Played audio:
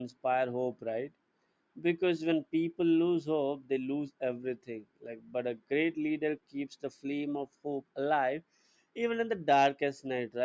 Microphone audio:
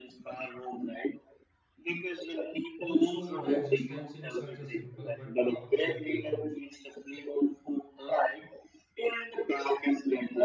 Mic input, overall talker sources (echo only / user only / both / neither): both